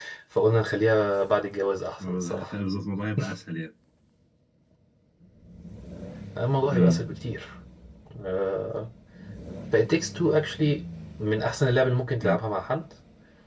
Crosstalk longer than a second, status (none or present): none